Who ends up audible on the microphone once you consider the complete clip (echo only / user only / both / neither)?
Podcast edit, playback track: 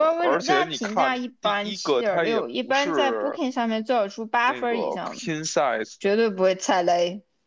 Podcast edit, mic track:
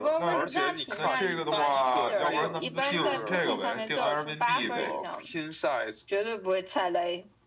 both